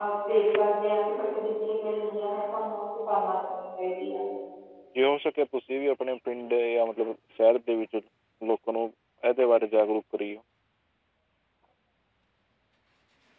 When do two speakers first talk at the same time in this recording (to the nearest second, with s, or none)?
none